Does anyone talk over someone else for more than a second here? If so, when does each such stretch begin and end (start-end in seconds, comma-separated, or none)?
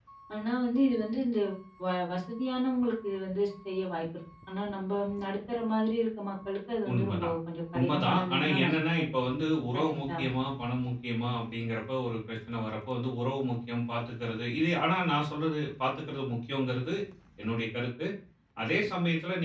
7.8-9.0